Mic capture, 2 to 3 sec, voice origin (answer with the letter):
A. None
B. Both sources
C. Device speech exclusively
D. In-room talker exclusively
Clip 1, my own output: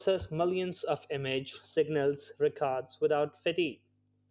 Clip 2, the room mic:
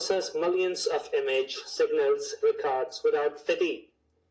C